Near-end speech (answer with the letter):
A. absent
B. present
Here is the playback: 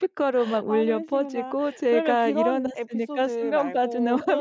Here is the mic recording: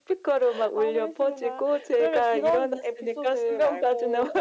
A